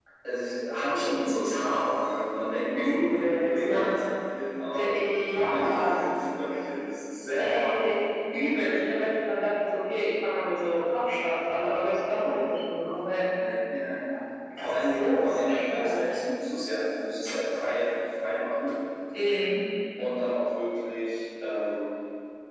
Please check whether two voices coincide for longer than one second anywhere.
Yes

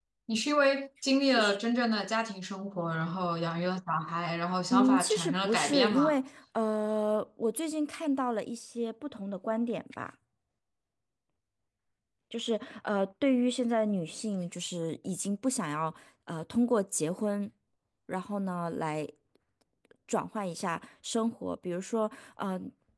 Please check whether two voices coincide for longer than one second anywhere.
Yes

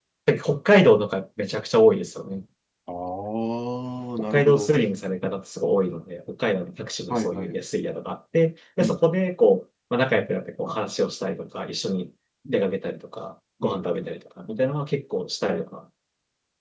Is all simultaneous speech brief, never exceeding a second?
Yes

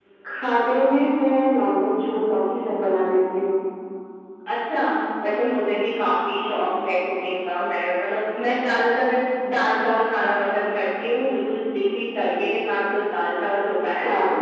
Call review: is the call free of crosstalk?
Yes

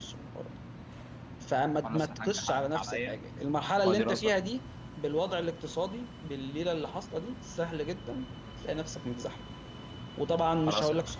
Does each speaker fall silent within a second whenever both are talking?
No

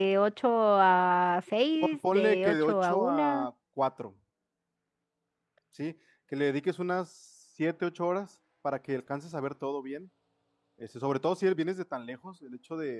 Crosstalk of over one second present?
Yes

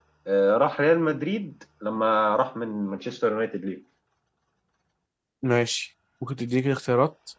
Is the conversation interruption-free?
Yes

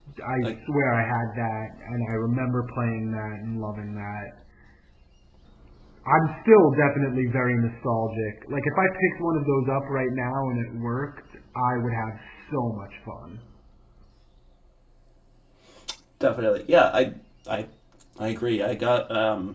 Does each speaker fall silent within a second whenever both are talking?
Yes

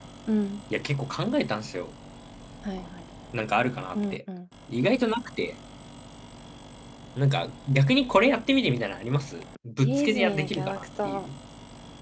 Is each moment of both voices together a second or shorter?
No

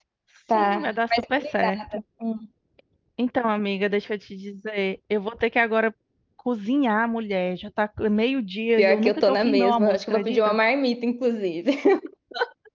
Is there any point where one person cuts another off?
Yes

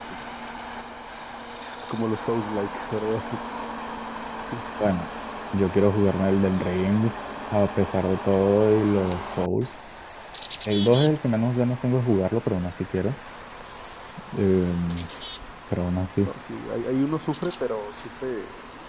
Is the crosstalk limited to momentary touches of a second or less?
Yes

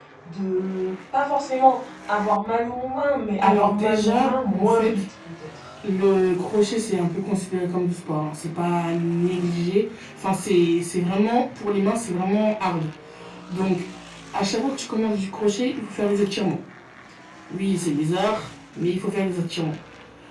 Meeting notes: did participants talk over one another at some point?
Yes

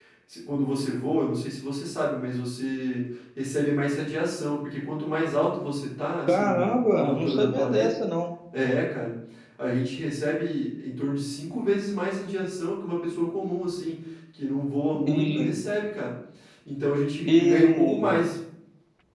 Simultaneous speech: Yes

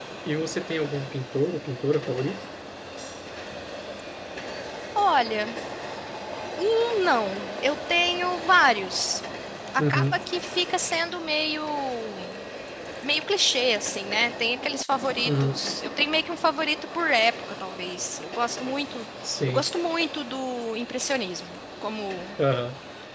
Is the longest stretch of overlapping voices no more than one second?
Yes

